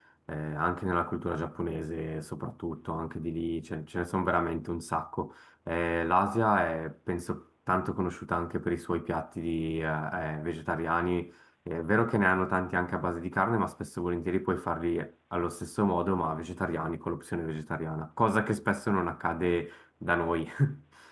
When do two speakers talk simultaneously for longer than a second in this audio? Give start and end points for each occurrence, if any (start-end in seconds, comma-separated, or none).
none